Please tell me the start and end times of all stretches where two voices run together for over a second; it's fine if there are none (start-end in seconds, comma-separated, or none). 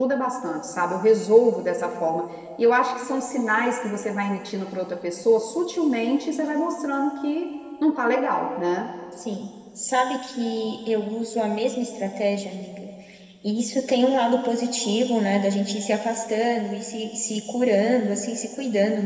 none